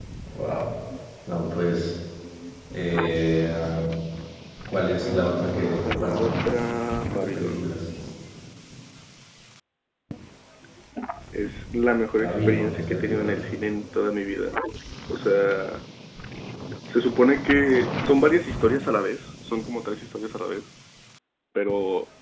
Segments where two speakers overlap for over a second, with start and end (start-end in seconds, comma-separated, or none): 5.0-6.3, 12.2-13.5